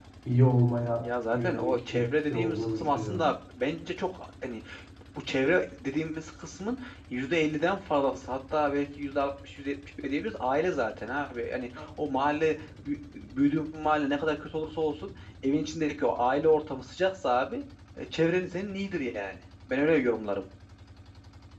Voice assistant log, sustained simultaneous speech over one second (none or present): present